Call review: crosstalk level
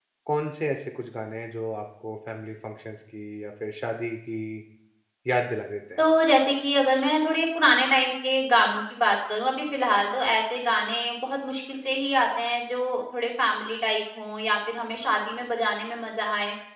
none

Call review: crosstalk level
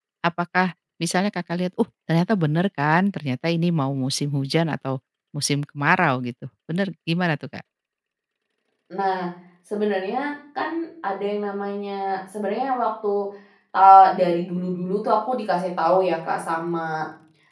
none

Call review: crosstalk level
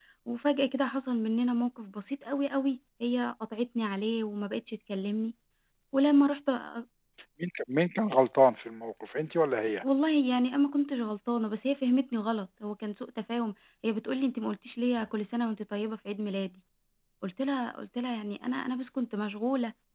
none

